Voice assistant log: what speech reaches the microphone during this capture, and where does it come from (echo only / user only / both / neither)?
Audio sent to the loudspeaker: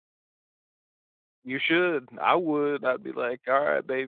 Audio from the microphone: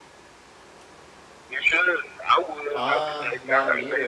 both